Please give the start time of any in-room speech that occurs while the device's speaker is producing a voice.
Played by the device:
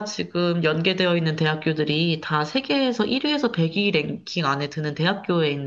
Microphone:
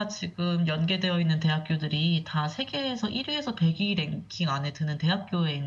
none

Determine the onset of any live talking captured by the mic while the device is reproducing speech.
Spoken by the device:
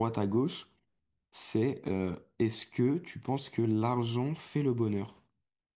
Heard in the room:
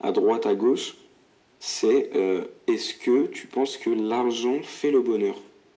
none

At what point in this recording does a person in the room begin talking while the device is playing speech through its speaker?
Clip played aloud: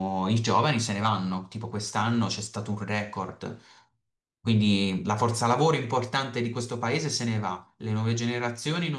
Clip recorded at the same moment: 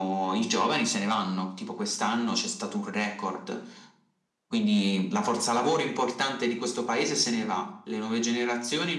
none

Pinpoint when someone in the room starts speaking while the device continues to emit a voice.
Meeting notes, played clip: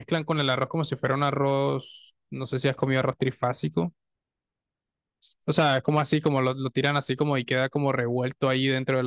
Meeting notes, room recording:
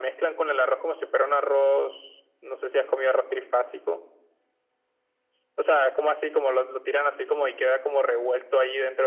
none

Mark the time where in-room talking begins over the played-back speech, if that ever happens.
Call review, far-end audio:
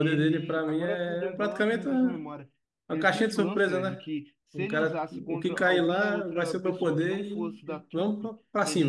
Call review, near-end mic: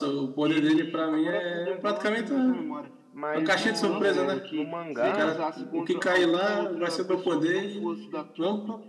3.1 s

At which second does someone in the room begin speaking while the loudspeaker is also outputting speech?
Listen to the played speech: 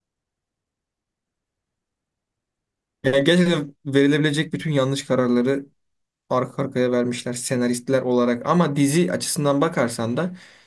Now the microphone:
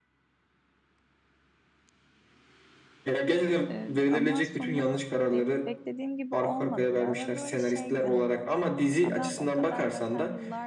3.7 s

